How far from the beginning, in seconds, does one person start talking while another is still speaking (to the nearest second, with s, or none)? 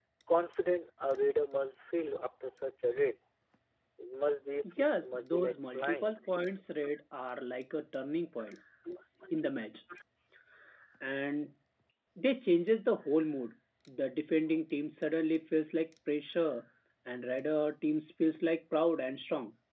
5 s